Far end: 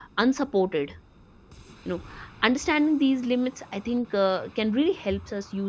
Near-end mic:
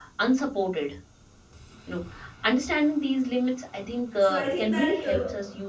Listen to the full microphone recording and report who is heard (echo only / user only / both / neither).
both